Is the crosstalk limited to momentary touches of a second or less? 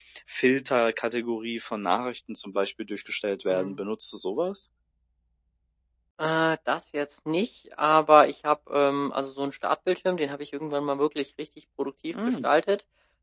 Yes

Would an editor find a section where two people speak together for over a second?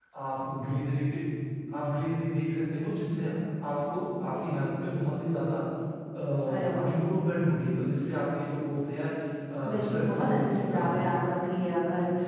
Yes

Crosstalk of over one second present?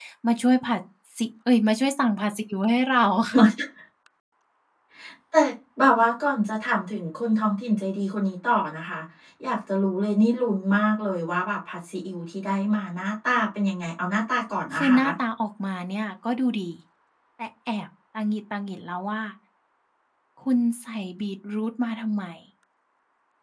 No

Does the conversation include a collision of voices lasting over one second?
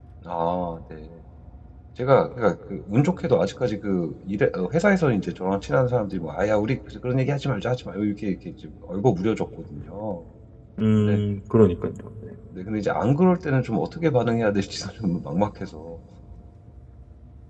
No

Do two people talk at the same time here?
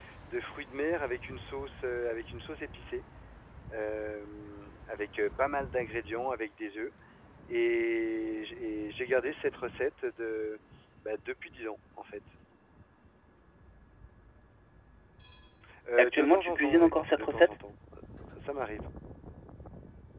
Yes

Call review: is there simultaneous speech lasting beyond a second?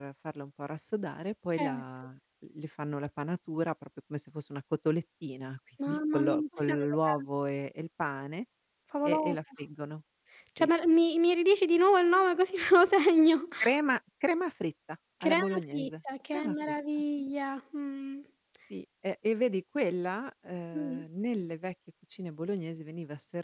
Yes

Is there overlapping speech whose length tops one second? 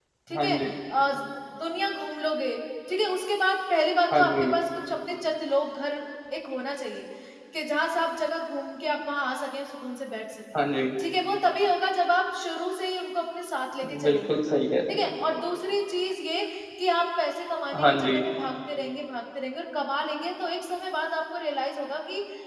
No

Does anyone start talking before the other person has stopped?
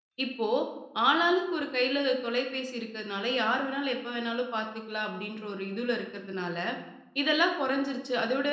No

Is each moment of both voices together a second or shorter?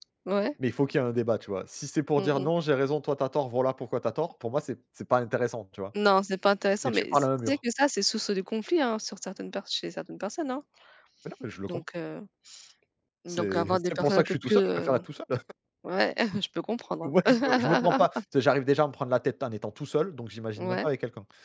No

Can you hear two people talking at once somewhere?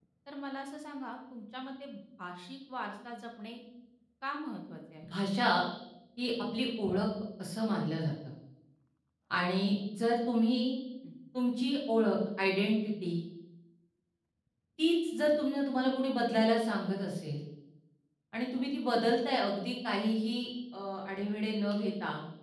No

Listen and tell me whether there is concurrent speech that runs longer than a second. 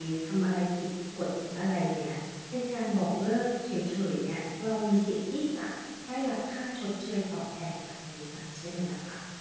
No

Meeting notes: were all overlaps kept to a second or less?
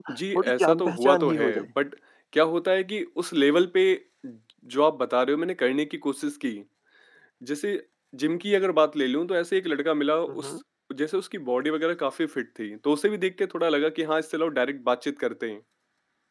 No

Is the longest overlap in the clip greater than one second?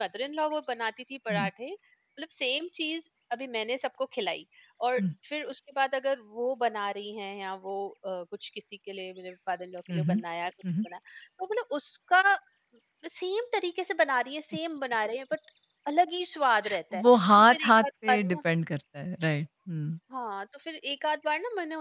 Yes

